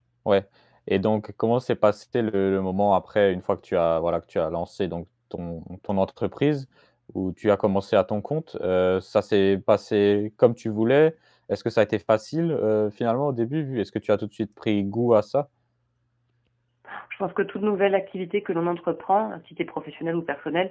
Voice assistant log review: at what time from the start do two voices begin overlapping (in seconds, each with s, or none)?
none